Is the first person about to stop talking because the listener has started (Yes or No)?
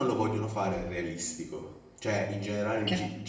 No